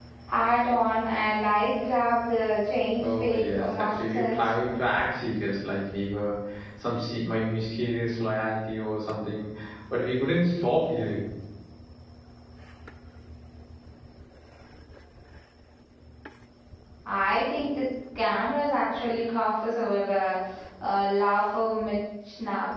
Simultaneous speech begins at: 3.0 s

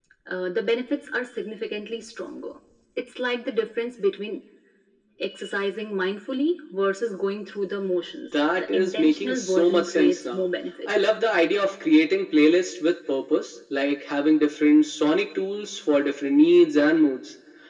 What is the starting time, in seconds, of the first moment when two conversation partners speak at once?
8.3 s

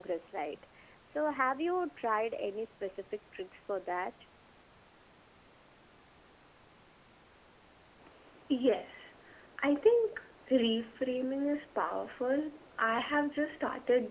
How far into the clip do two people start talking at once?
none

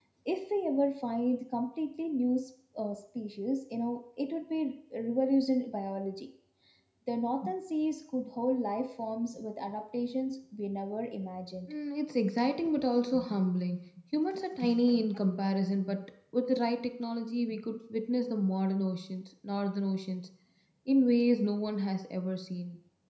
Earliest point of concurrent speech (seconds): none

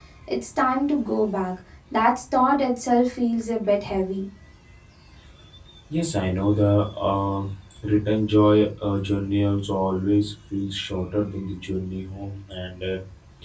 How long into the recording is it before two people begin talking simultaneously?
none

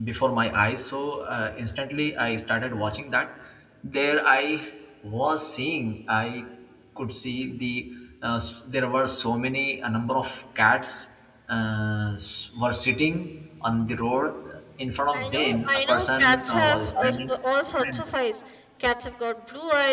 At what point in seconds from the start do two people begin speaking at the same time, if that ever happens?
15.1 s

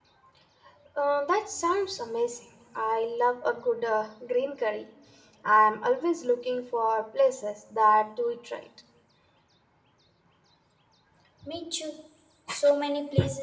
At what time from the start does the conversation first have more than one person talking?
none

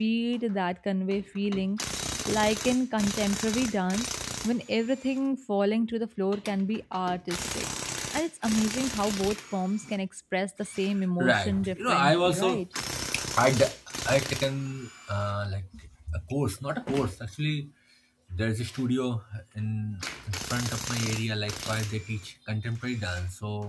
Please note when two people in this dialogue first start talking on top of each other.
11.2 s

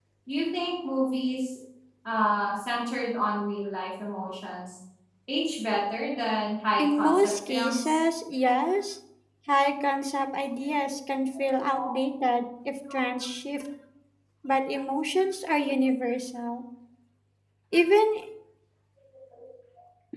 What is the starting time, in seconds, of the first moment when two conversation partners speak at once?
6.8 s

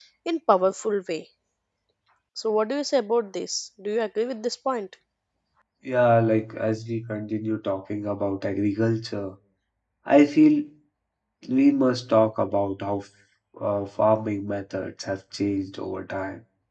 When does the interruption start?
none

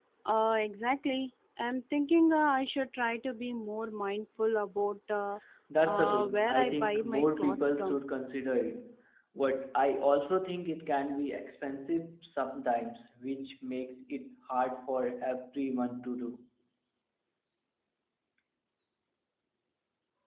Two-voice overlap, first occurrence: 5.9 s

